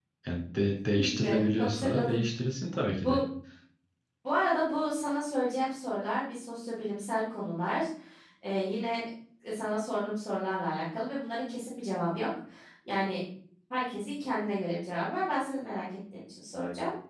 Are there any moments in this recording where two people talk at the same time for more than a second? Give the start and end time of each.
0.9-2.2

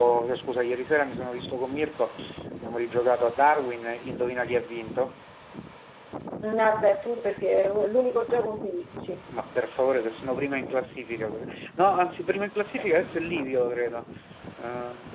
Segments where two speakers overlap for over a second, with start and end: none

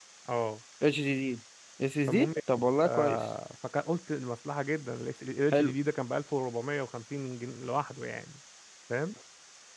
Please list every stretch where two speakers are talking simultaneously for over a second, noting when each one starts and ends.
none

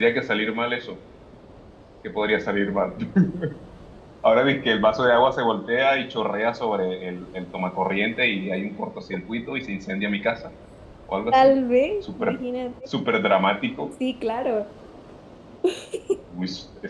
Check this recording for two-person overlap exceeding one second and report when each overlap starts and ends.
none

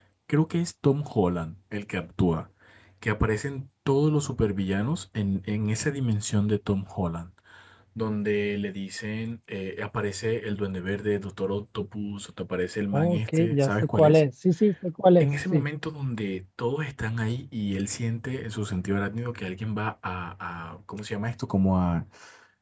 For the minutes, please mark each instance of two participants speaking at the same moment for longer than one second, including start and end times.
12.9-14.2

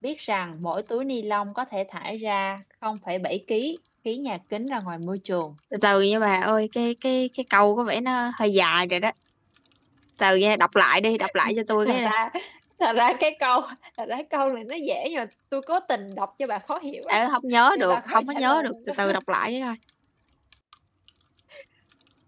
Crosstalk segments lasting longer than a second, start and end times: 17.7-18.9

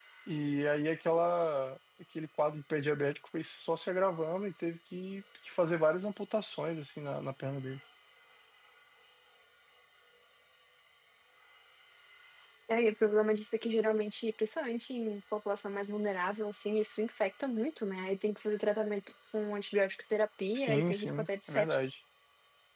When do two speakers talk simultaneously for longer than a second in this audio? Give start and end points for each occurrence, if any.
20.5-21.9

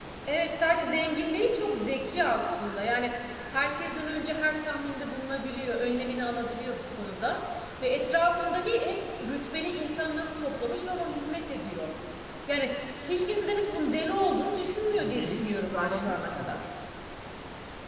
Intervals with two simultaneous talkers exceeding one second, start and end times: 14.9-16.6

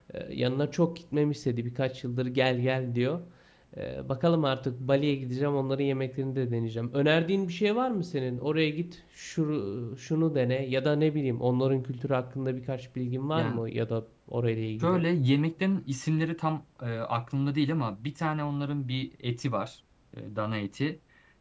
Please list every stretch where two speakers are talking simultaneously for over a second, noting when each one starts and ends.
none

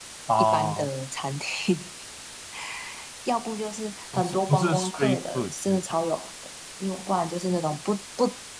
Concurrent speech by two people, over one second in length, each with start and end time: 4.1-5.8

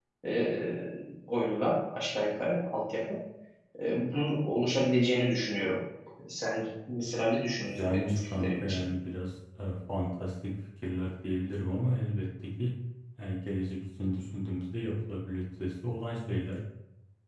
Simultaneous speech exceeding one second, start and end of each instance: 7.6-8.8

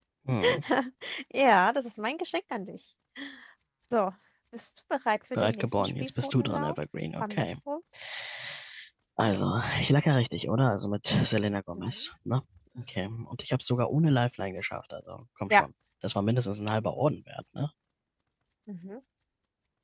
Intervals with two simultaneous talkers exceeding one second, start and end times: 5.3-6.8

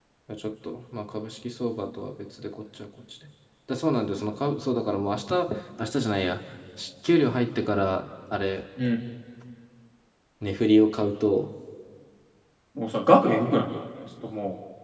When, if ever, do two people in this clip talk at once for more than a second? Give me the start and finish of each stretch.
none

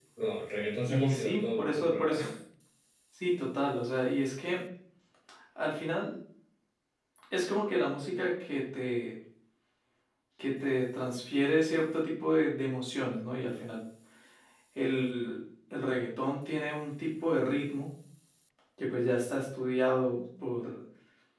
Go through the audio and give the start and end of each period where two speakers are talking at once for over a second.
0.9-2.2

